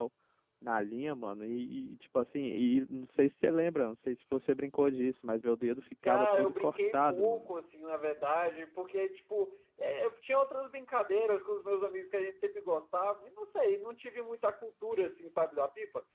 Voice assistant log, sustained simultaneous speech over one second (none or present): present